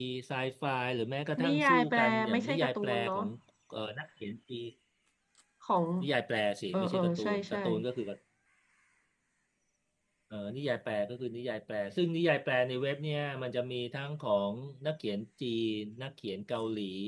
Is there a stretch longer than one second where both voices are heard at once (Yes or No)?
Yes